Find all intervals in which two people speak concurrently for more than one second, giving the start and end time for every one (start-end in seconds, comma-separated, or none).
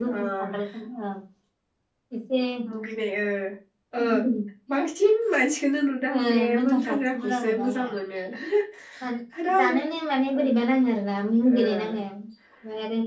6.1-7.9